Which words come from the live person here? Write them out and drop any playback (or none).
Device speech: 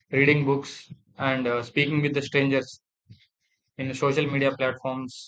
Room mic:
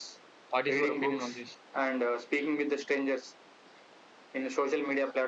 What is your opinion on this?